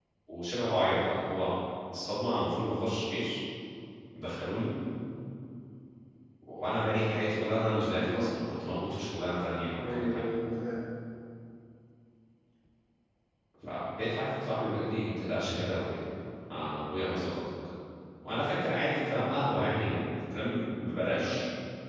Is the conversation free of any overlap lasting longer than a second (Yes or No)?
Yes